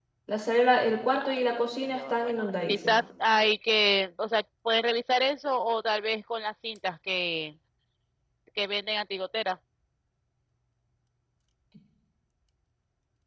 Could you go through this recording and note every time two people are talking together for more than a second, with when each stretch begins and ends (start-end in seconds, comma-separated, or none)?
1.2-3.0